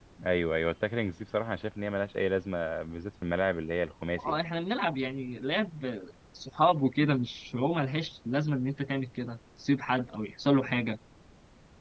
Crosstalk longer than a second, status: none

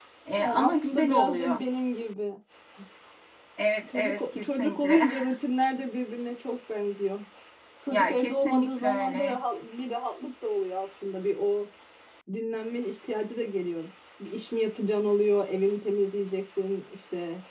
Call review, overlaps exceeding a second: present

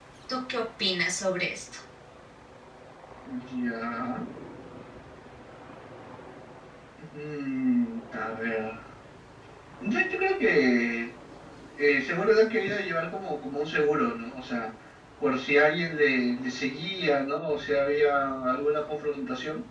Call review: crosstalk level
none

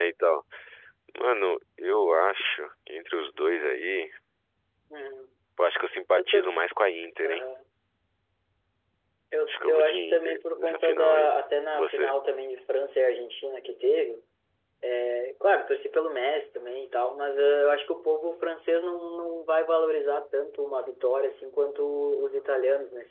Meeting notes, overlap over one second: present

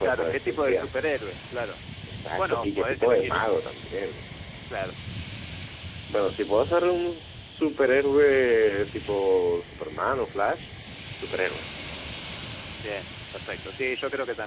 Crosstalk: present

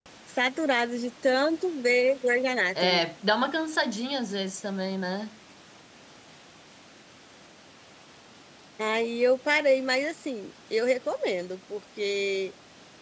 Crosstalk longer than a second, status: none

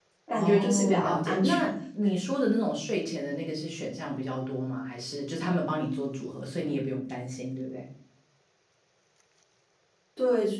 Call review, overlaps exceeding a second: present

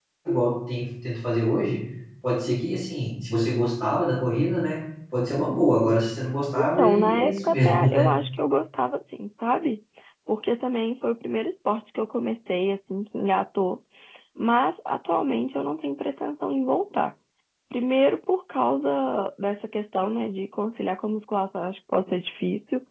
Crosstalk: present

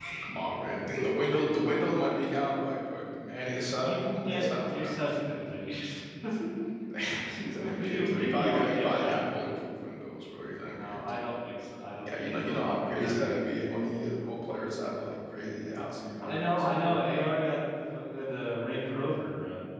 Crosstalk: present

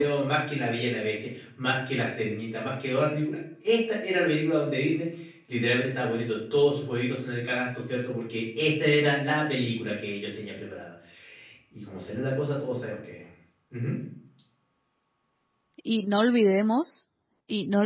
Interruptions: none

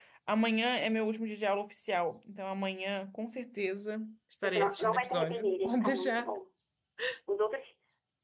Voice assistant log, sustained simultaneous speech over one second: present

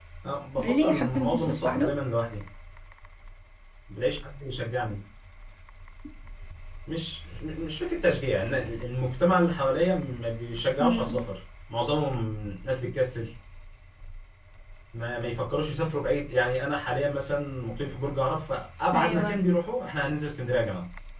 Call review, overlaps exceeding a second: present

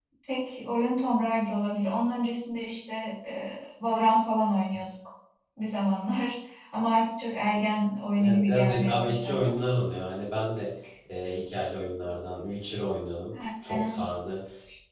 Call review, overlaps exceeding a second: present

